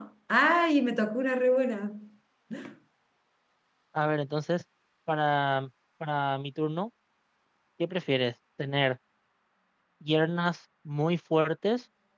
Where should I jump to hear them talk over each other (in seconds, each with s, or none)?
none